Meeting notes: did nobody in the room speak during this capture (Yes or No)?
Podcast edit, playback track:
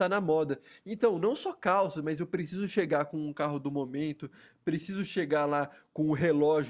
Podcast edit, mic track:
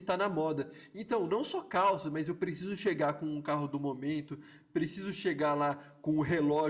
Yes